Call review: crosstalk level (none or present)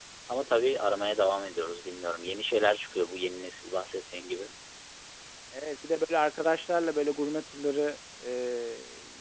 none